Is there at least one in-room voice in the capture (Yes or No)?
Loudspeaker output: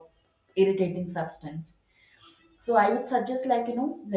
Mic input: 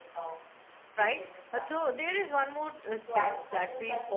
Yes